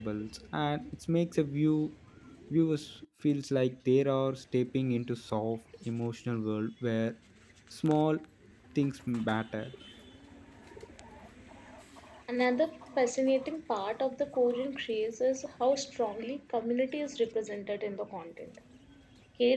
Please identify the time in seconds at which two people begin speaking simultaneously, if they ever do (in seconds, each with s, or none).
none